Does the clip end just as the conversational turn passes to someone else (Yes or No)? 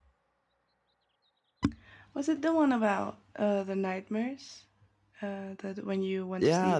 Yes